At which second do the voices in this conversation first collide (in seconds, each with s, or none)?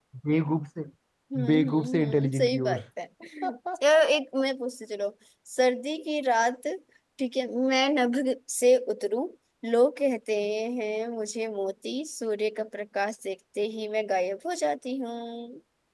1.4 s